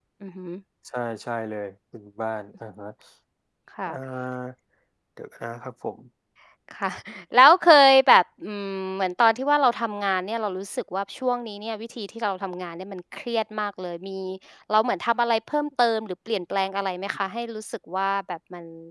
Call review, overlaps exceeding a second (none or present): none